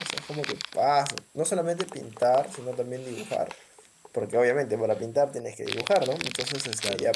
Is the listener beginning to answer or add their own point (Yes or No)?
No